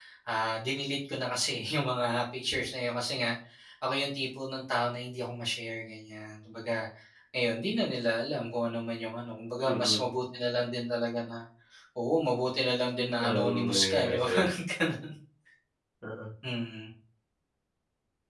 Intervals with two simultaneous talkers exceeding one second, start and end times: 13.2-14.5

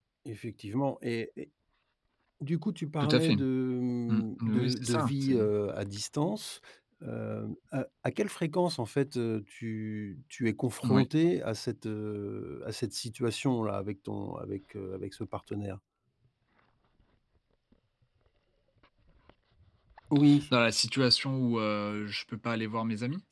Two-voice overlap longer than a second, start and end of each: 4.1-5.3

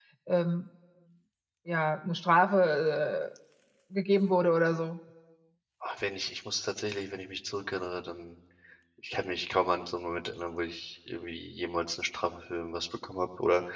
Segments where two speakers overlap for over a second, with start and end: none

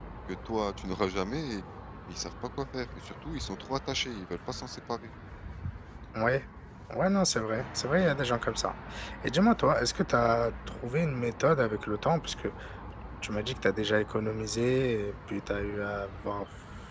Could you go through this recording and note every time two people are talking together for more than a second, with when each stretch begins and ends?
none

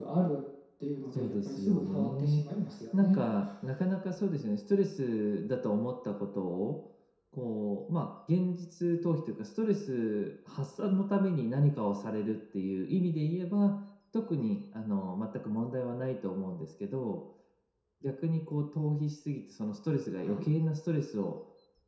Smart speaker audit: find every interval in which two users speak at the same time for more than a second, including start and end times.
1.1-2.5

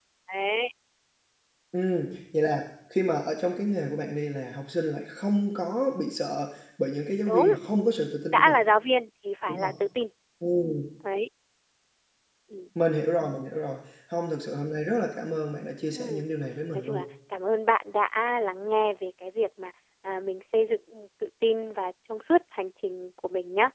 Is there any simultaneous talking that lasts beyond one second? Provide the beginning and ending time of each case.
none

